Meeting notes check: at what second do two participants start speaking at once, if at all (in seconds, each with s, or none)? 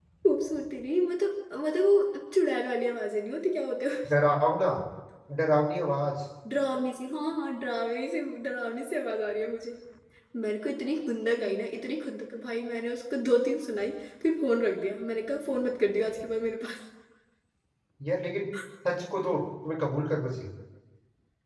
none